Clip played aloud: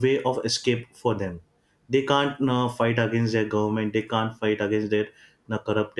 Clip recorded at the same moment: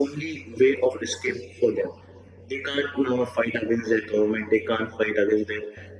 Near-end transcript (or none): none